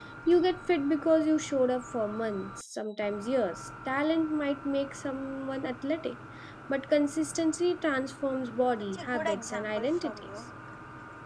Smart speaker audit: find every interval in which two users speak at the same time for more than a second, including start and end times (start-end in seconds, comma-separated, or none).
8.9-10.3